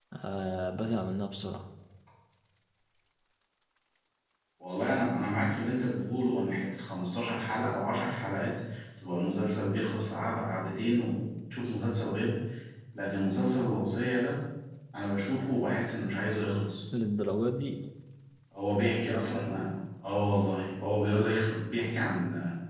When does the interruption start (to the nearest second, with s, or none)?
none